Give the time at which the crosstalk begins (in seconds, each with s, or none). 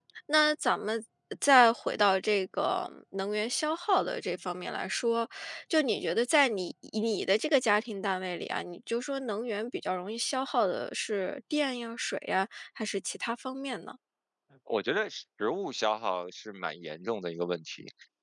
none